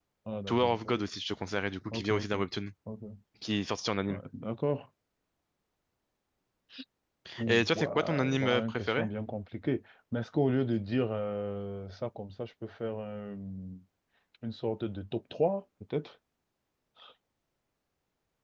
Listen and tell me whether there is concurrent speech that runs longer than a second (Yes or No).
Yes